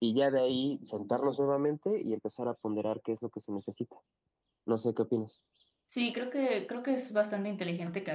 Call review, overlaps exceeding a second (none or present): none